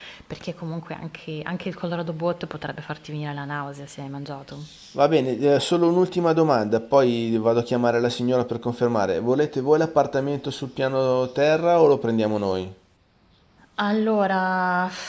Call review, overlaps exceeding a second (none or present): none